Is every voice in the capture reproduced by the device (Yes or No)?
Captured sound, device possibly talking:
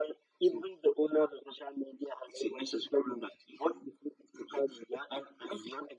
Yes